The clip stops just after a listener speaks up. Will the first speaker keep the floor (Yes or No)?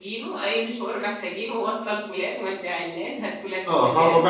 No